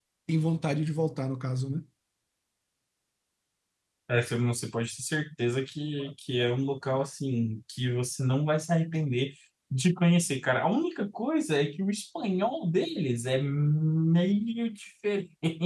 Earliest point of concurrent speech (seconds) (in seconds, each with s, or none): none